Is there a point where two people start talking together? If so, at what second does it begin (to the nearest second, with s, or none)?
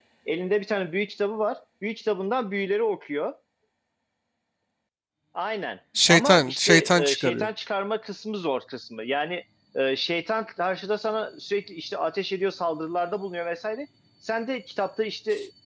6 s